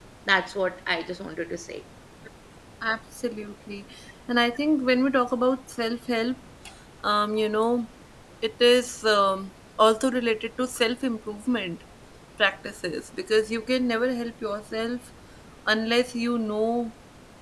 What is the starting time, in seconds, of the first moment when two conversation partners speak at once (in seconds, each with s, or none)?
none